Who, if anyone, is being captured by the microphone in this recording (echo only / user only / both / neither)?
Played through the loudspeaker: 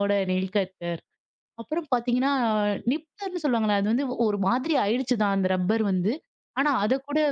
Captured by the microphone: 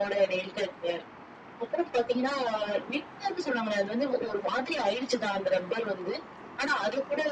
echo only